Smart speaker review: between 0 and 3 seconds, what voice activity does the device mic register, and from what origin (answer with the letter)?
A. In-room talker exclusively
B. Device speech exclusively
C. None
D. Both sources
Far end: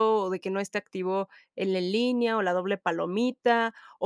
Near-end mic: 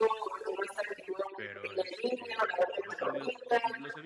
D